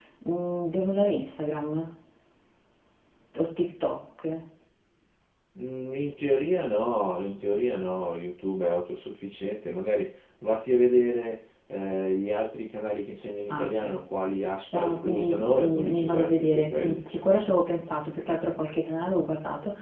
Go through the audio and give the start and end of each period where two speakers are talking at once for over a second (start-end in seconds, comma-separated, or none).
14.7-17.1